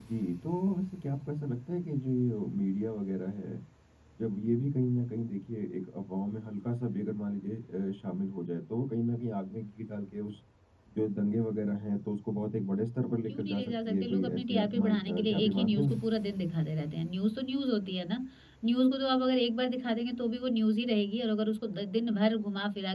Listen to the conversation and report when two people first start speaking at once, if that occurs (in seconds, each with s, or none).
13.3 s